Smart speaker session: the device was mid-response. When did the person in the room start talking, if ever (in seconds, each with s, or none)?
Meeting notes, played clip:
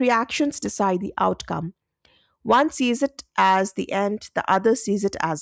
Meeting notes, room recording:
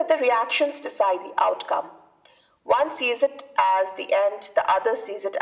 none